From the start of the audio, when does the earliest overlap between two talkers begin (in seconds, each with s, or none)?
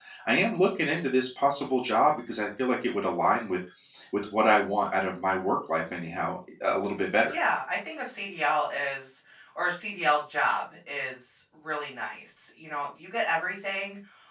none